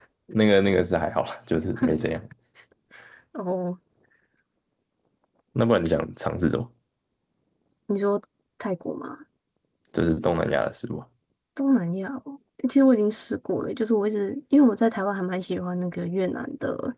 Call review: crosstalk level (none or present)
none